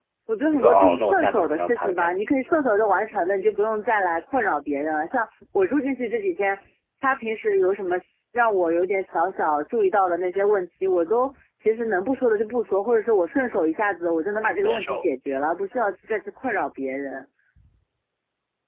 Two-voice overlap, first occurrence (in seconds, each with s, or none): 0.5 s